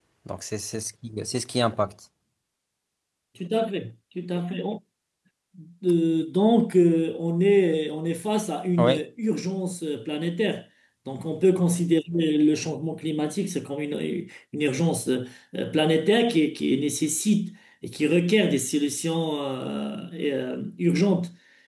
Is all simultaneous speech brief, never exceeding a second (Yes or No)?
Yes